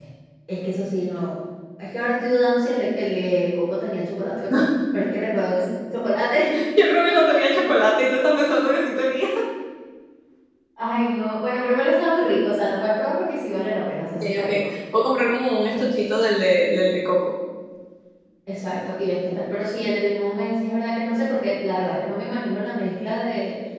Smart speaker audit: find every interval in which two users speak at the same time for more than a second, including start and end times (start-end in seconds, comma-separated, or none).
none